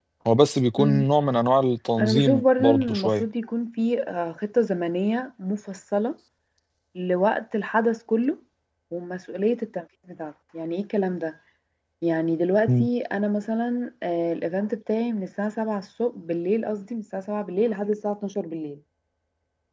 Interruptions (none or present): present